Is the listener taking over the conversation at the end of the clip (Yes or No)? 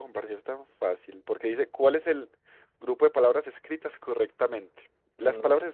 No